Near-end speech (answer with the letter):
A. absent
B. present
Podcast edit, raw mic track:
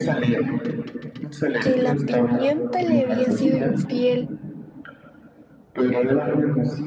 B